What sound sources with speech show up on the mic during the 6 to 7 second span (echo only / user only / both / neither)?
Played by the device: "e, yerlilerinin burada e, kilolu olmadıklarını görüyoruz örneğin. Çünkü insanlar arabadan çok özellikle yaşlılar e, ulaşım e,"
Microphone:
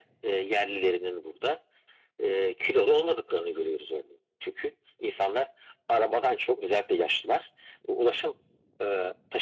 echo only